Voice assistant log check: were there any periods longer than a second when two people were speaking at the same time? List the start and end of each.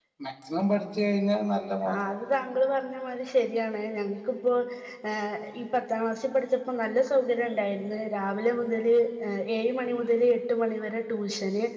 none

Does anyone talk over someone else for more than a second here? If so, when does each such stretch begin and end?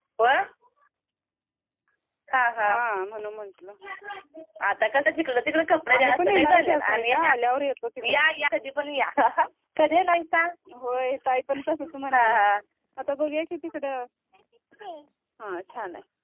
6.0-7.3

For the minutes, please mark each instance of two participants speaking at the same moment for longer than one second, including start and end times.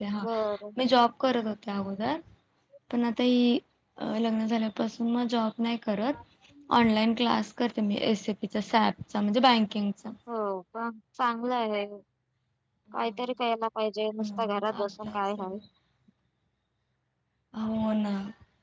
14.2-15.6

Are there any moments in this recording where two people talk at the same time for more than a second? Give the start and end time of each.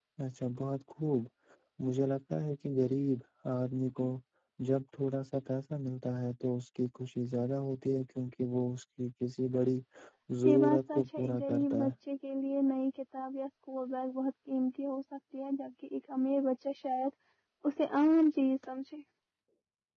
10.4-11.9

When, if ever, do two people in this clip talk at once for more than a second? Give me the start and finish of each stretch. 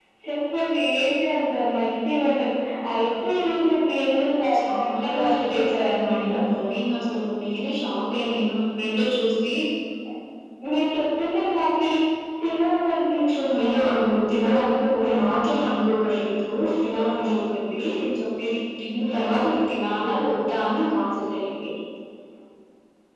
4.6-6.4, 13.6-15.2

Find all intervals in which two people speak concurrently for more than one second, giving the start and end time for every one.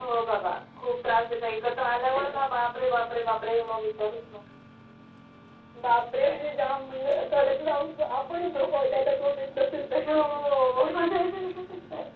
none

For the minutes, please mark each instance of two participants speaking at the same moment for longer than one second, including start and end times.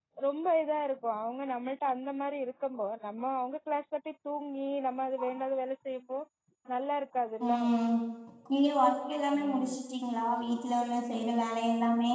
none

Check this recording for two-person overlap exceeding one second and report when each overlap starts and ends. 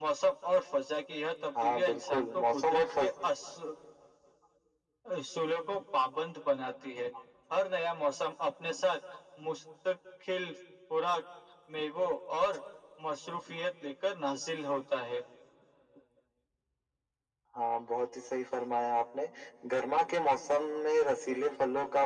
1.6-3.0

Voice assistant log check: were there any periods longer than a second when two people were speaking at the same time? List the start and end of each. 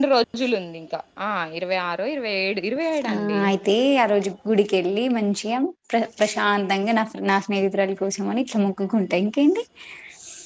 none

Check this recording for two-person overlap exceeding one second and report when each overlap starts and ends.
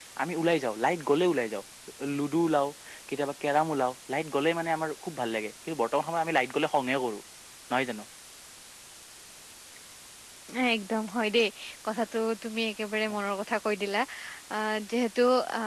none

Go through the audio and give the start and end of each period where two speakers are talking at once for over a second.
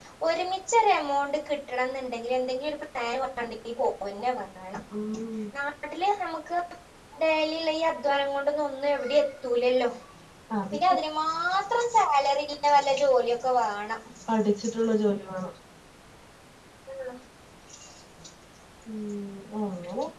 none

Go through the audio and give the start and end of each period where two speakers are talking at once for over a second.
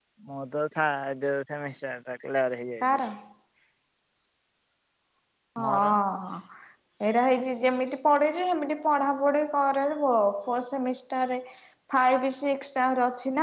none

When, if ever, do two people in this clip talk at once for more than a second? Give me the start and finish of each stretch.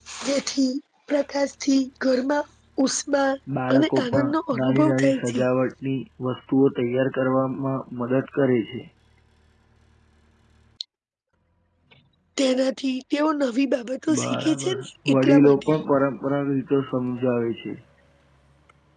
3.7-5.4, 14.2-15.7

